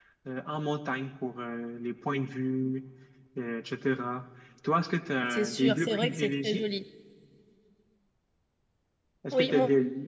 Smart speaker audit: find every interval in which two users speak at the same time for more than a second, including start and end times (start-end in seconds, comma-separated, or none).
5.3-6.6